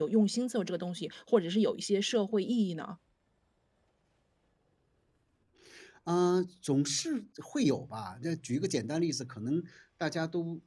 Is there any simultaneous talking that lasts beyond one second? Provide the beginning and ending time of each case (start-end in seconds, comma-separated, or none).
none